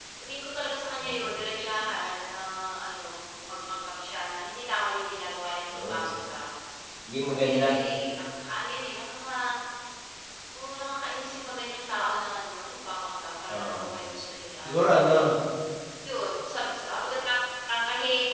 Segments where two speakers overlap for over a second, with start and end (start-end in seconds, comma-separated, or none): none